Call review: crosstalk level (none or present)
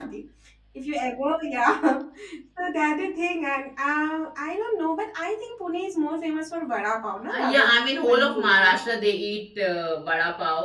present